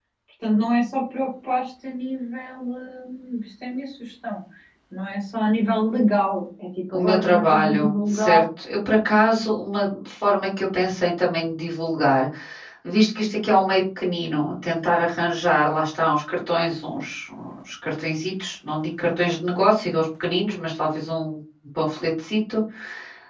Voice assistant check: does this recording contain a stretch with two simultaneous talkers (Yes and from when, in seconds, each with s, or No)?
Yes, from 6.9 s